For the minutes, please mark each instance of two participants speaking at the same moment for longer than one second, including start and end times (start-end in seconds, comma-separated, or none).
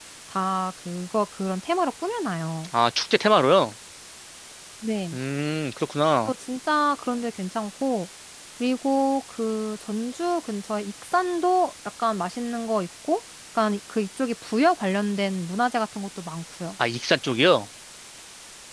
none